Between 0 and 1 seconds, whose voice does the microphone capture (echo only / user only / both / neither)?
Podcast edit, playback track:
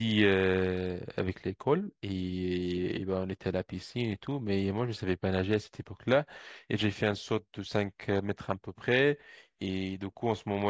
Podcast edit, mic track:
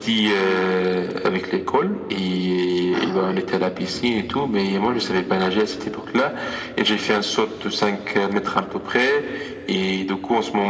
echo only